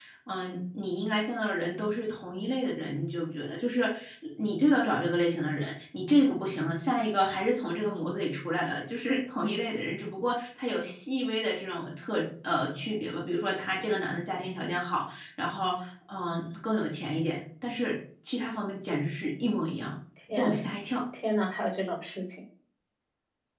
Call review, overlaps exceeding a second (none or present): none